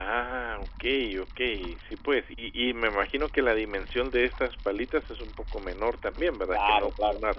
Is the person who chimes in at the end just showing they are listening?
No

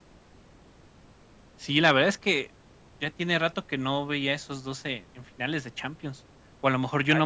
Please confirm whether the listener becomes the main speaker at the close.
No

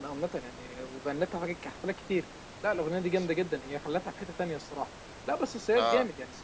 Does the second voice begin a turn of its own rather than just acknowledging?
No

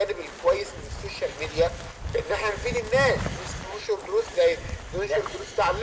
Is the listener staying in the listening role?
Yes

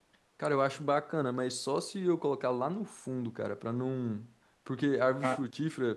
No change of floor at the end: Yes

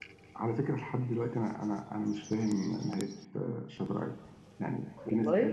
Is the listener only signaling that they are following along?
Yes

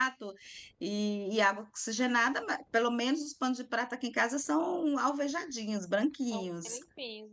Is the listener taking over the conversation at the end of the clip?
Yes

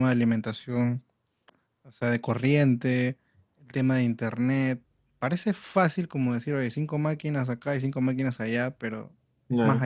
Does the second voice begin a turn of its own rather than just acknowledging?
No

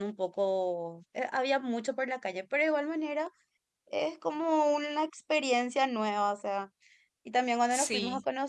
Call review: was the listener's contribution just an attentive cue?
Yes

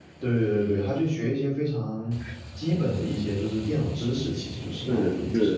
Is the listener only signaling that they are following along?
No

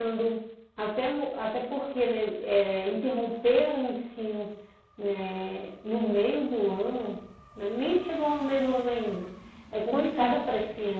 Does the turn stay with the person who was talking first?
Yes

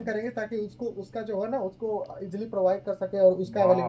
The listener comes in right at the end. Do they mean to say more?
Yes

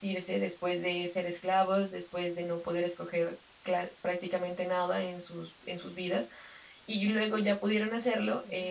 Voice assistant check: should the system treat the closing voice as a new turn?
No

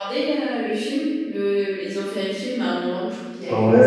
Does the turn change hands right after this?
Yes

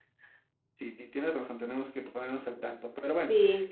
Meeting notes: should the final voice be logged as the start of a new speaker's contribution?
No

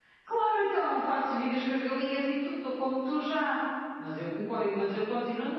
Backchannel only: Yes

